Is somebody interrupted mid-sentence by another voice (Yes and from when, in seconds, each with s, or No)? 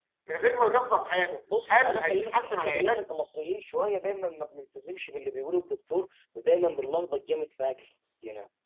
Yes, from 1.5 s